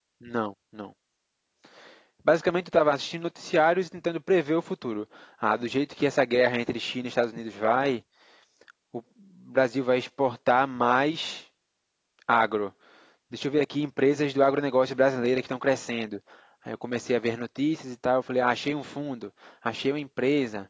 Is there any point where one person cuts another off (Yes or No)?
No